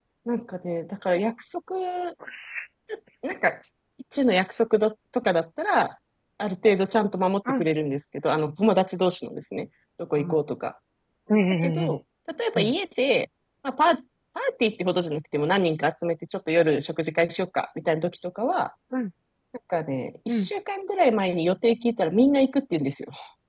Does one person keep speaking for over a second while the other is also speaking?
No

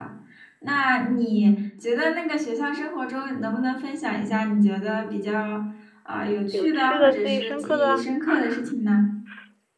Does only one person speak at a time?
No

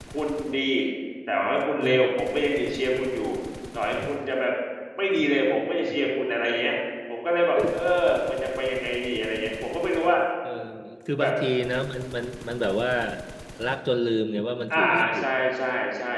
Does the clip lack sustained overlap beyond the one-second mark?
Yes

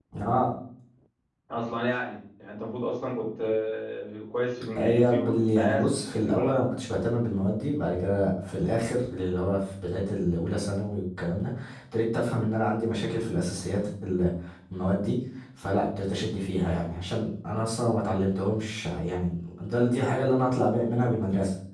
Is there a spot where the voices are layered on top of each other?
Yes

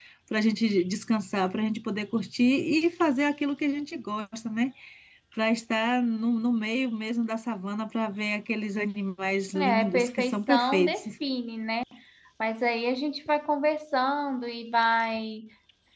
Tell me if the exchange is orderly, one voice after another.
No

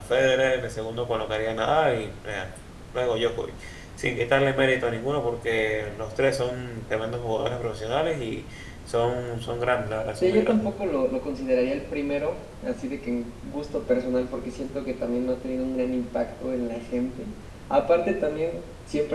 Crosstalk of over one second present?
No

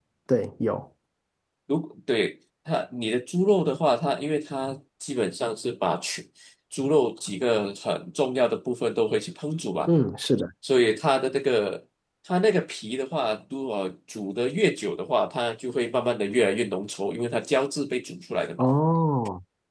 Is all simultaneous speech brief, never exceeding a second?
Yes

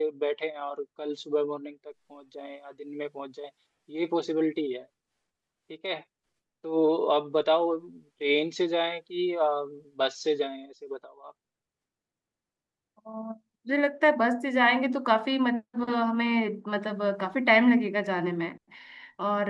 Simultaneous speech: No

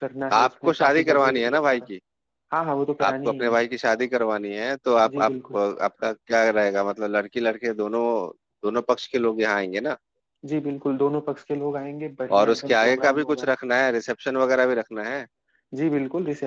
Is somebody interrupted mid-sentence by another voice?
Yes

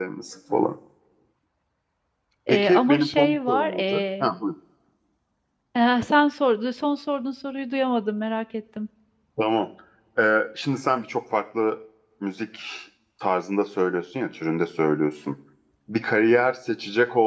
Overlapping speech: Yes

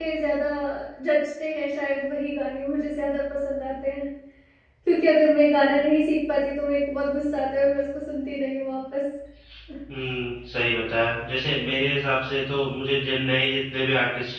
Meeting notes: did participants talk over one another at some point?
No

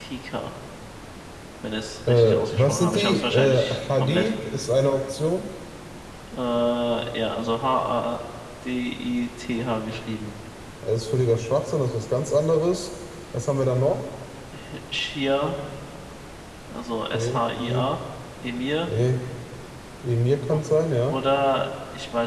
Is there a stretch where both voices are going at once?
Yes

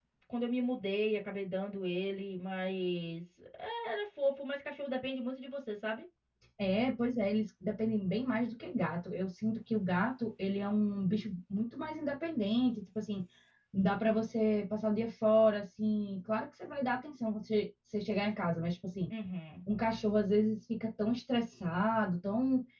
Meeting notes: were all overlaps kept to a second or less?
Yes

